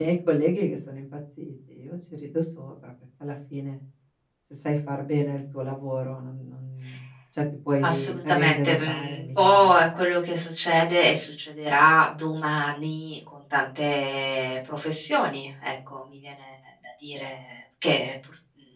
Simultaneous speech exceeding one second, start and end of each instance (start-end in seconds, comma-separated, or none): 7.8-9.7